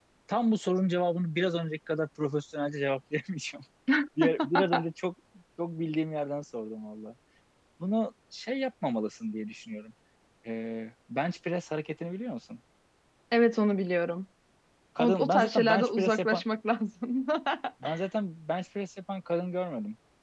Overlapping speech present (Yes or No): Yes